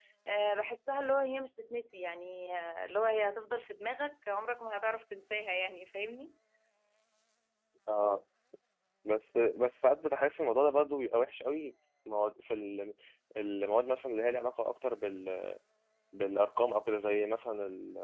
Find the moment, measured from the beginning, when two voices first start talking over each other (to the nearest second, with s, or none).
none